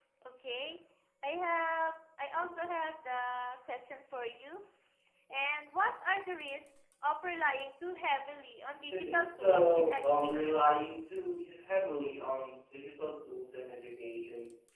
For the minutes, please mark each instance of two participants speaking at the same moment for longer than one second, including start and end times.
8.9-10.6

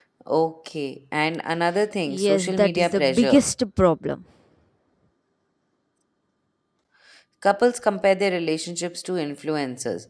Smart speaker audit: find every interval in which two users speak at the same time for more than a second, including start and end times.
2.1-3.4

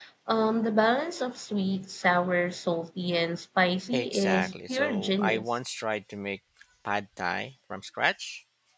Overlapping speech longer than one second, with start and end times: 3.9-5.5

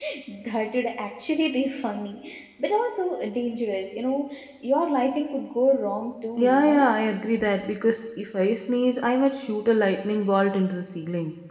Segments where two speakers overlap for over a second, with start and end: none

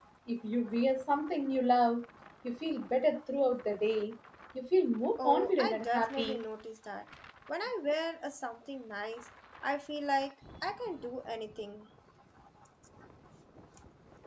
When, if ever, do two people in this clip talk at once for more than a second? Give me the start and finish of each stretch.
5.2-6.4

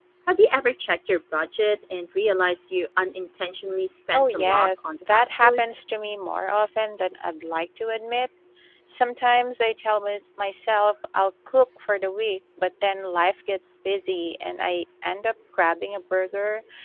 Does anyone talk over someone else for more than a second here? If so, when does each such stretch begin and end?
4.1-5.7

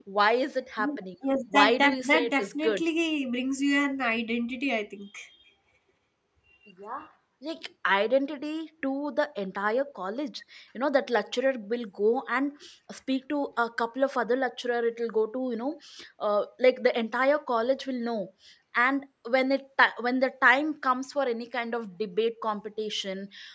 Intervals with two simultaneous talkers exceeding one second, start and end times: 1.5-2.8

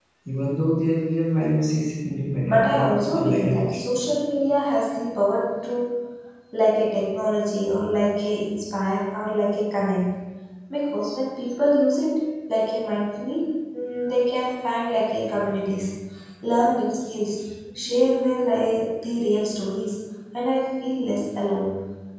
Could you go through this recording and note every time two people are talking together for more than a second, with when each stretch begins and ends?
2.4-3.8

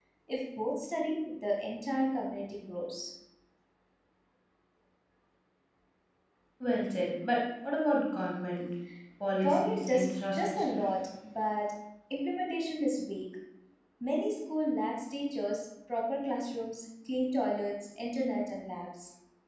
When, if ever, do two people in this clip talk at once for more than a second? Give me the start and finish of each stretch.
9.4-10.8

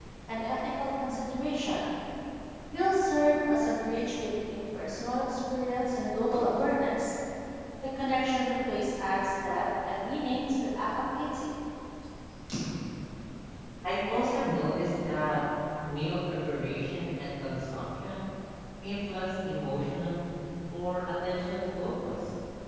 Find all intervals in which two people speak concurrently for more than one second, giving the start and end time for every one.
none

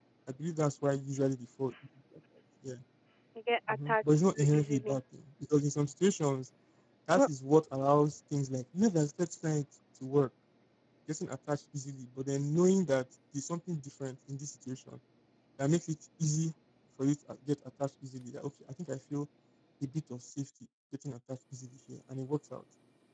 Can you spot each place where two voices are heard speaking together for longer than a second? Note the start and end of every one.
3.7-5.0

